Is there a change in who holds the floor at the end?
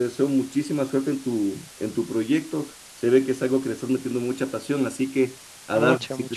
No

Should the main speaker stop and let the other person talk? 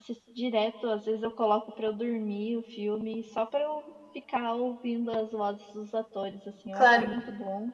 Yes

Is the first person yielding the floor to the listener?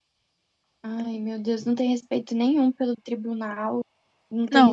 No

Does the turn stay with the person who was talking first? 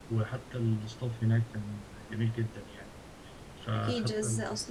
No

